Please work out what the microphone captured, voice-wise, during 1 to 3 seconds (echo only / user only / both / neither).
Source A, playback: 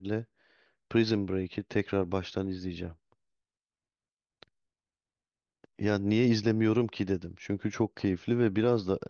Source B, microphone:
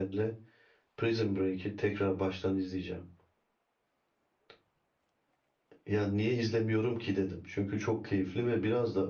echo only